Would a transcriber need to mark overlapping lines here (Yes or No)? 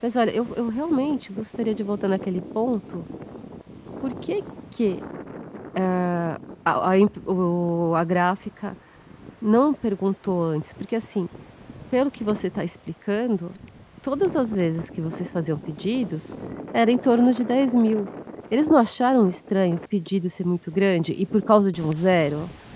No